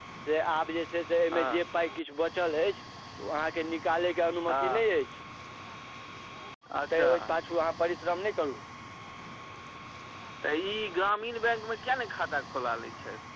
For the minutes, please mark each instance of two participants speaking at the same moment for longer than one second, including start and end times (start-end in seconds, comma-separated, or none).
none